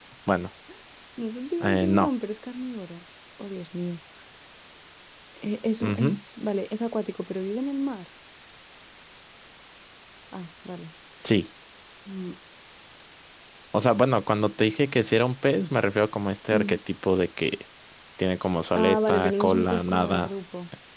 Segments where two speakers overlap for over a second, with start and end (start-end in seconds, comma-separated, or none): 18.7-20.3